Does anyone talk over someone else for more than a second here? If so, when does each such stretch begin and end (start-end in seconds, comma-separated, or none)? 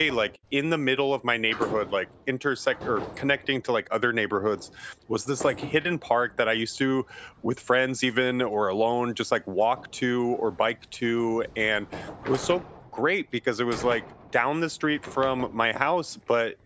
none